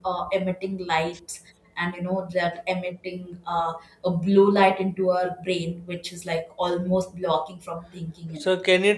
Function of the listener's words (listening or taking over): taking over